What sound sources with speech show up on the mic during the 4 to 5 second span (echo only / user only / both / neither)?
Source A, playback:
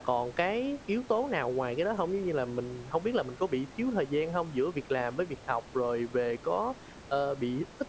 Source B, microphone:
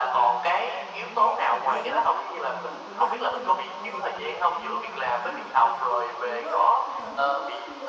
both